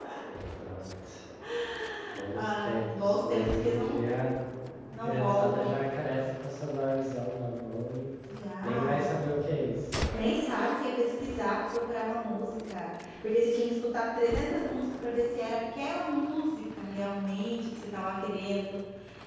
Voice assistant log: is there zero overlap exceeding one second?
No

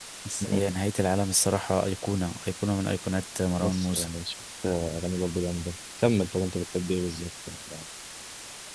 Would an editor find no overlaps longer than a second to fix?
Yes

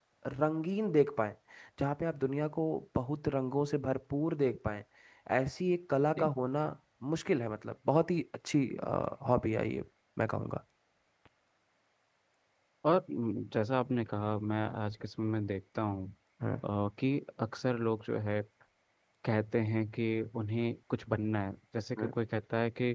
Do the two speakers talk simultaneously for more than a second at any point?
No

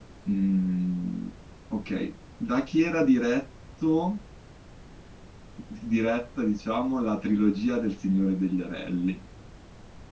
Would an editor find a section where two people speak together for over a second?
No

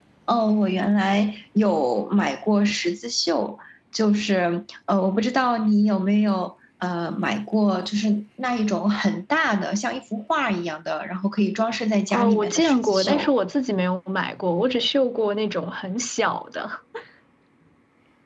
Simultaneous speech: Yes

